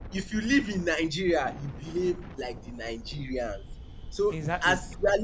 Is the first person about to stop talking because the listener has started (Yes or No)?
No